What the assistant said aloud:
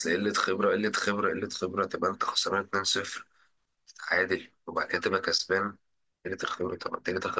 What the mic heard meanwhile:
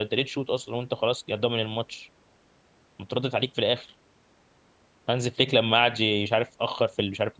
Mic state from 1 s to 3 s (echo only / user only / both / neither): user only